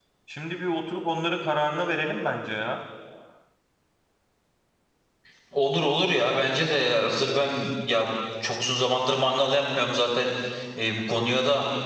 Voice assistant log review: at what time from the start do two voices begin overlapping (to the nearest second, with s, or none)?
none